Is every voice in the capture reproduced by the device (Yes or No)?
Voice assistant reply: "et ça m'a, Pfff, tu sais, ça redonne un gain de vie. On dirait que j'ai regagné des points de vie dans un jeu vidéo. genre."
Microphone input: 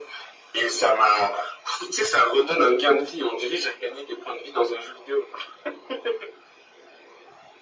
Yes